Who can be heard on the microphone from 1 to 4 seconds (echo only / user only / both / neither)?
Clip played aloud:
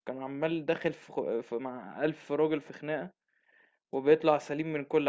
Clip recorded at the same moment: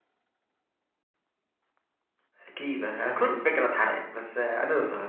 user only